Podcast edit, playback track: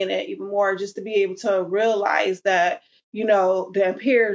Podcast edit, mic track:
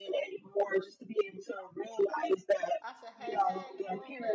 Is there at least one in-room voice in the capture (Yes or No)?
Yes